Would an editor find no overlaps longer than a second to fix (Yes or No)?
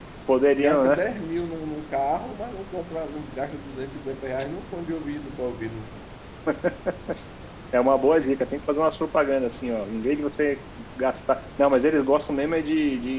Yes